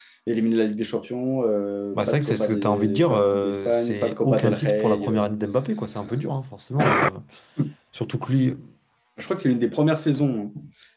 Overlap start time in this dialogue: 2.0 s

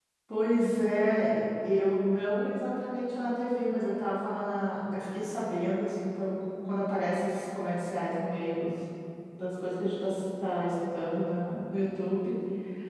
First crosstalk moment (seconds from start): none

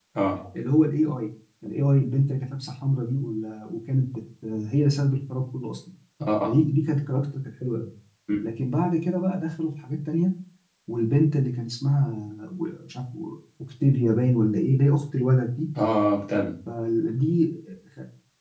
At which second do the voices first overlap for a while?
none

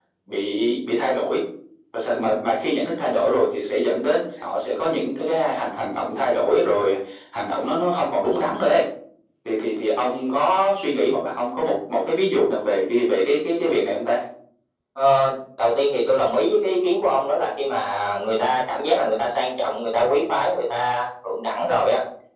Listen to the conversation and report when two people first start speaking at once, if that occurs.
none

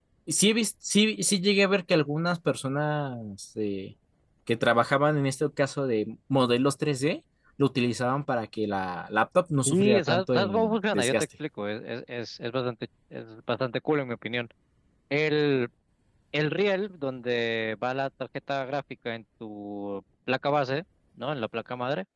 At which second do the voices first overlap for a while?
9.6 s

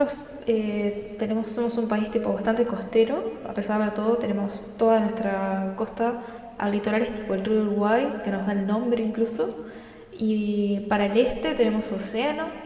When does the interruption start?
none

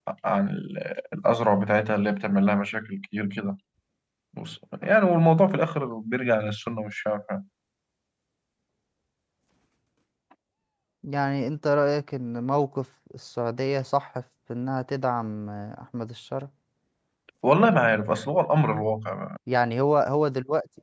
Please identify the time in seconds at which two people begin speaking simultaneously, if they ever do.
none

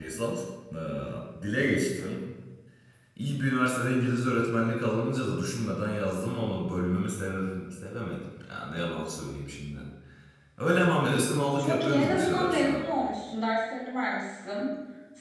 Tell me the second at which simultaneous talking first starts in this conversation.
11.6 s

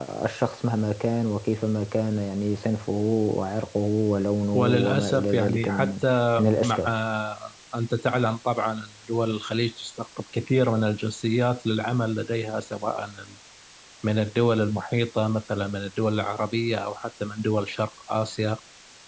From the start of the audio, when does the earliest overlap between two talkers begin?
4.5 s

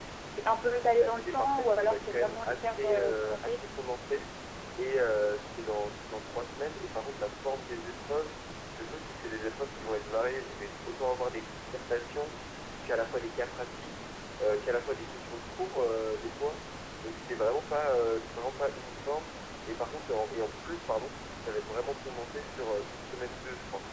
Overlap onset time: 1.0 s

